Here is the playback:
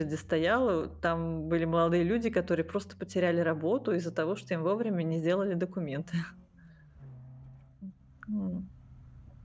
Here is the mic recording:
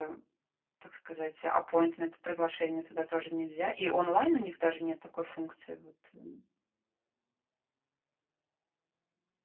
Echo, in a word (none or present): none